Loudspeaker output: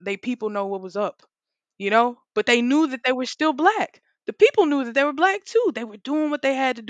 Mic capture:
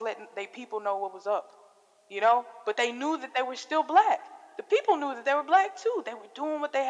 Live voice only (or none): none